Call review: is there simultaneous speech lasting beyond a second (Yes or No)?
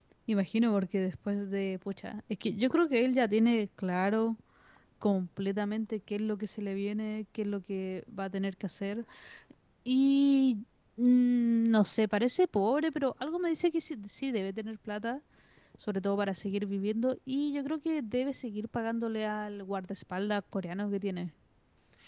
No